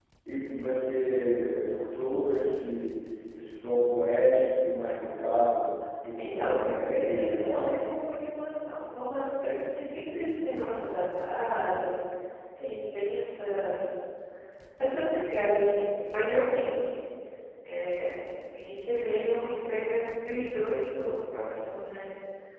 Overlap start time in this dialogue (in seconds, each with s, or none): 6.2 s